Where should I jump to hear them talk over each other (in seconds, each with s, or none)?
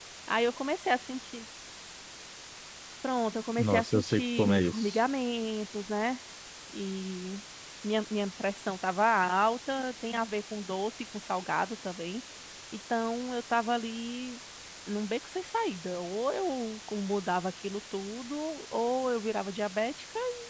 3.6 s